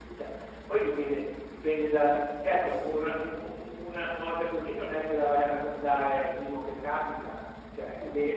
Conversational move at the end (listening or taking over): listening